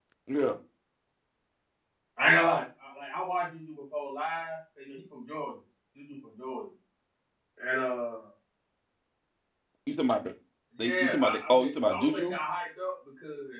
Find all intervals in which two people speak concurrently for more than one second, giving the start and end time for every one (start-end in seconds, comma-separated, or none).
10.8-12.3